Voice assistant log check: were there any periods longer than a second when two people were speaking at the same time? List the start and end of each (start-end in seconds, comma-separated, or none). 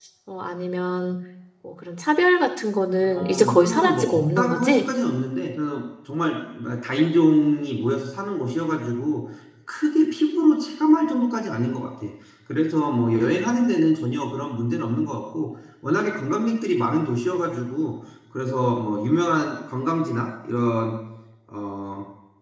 3.0-4.9